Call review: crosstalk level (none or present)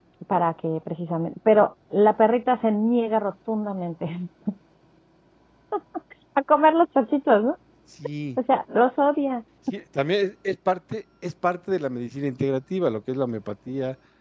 none